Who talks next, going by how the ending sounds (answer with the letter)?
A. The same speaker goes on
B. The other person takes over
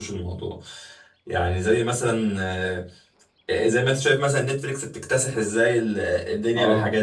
A